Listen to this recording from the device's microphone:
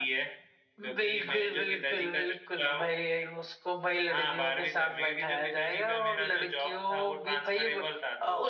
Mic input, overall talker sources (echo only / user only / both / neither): echo only